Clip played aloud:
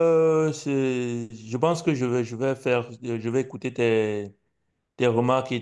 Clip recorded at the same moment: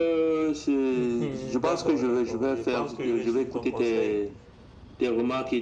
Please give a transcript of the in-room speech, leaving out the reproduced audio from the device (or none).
Mhm, D'accord, d'accord. Je pense que je vais suivre ton conseil.